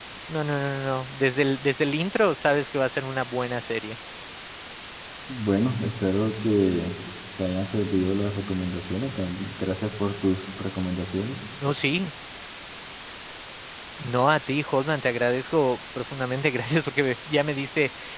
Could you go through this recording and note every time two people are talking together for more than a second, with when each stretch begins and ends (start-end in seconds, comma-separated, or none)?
none